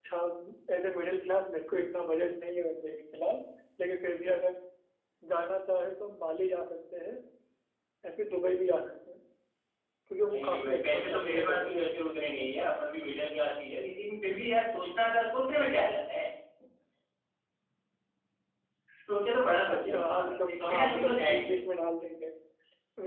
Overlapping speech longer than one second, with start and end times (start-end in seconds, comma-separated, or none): 10.3-11.8, 19.7-21.6